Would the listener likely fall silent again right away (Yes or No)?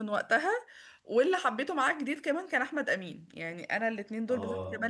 Yes